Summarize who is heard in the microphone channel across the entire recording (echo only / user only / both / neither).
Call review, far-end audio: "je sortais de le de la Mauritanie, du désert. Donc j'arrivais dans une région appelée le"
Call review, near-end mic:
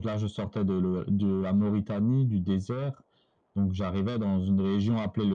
echo only